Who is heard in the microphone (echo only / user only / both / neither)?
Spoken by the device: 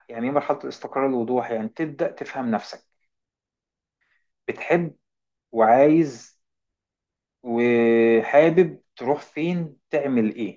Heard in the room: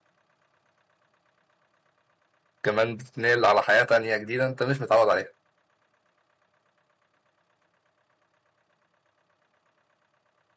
user only